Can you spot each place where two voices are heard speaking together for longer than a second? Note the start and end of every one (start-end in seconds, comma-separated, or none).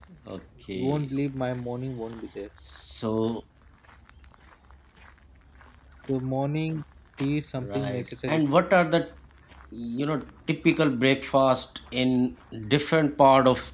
7.6-8.8